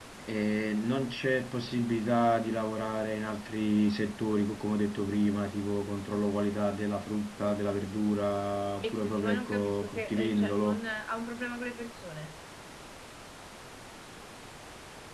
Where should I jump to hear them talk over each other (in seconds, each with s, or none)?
8.8 s